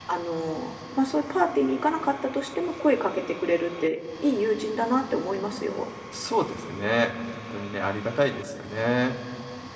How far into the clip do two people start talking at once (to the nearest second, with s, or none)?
none